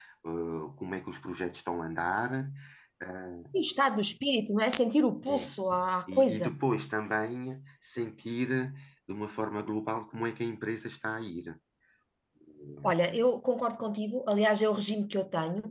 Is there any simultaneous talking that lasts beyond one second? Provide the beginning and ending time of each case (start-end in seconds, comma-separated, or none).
none